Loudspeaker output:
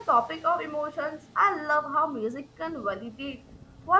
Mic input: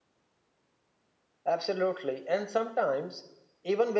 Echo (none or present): none